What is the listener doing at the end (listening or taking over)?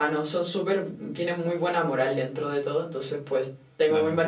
listening